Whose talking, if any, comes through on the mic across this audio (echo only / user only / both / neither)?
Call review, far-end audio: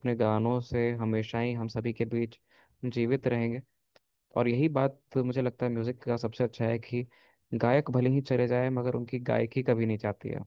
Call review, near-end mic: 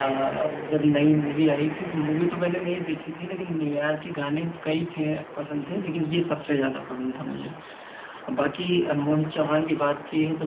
user only